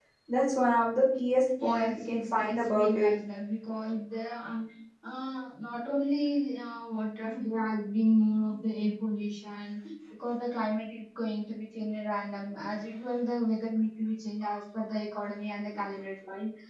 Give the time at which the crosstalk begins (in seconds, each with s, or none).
1.6 s